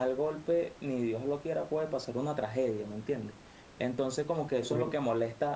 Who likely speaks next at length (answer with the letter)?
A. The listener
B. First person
B